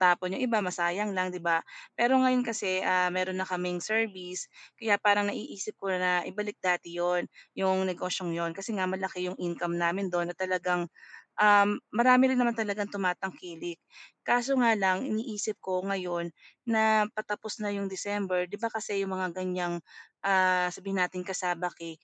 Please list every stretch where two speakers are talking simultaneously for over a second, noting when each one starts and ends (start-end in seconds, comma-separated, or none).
none